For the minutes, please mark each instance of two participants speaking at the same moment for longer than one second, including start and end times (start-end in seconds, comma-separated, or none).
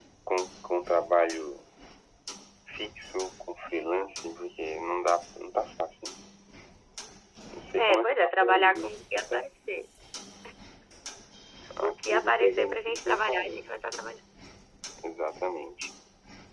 7.8-9.4, 11.8-13.6